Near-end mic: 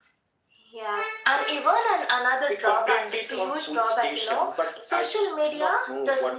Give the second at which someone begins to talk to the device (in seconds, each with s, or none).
none